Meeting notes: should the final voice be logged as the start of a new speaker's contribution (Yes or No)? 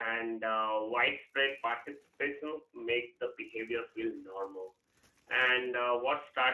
No